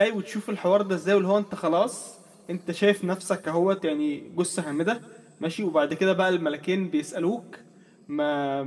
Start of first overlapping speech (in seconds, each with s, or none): none